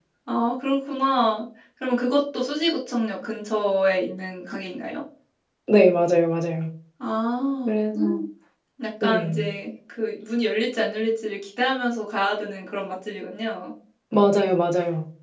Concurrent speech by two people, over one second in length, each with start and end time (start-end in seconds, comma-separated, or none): none